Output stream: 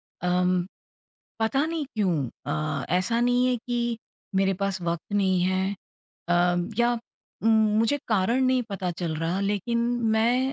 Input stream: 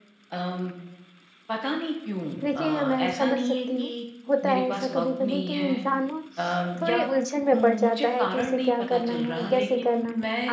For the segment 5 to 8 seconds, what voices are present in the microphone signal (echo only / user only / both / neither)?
both